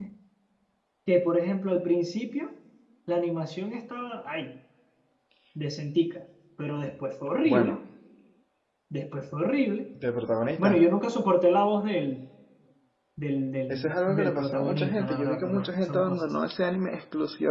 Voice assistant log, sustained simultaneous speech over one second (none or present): present